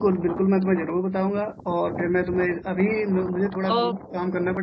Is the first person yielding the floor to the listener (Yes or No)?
No